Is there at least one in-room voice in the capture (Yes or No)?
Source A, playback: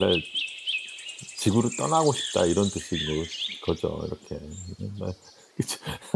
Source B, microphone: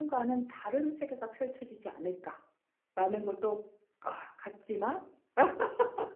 Yes